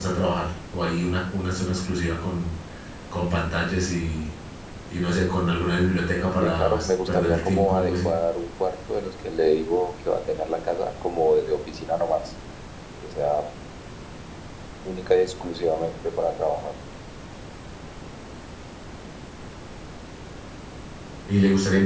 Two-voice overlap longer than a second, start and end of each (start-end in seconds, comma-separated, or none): 6.4-8.1